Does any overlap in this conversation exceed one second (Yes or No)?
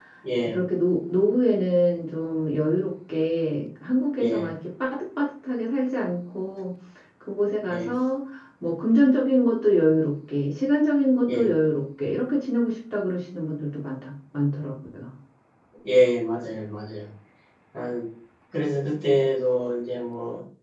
No